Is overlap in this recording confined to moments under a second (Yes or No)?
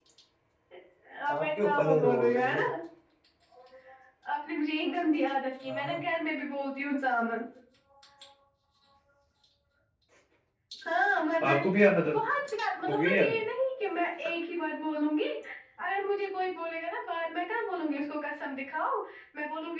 No